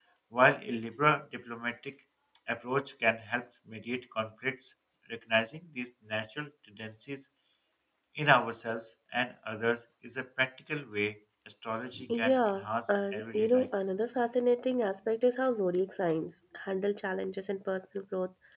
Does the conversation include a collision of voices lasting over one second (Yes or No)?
Yes